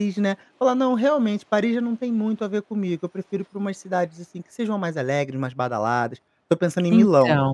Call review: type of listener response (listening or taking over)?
listening